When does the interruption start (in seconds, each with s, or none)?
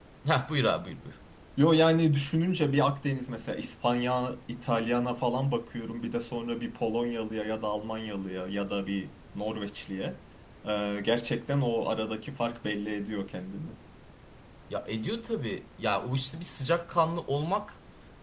none